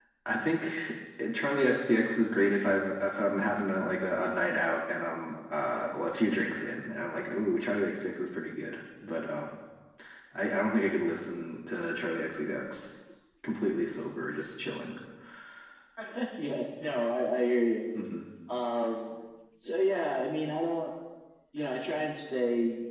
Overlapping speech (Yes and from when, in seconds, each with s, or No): No